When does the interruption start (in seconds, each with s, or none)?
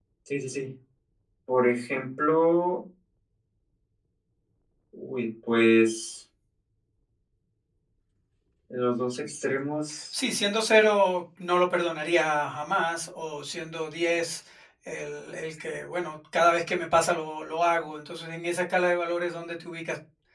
none